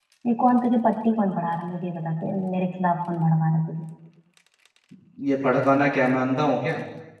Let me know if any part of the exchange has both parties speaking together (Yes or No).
No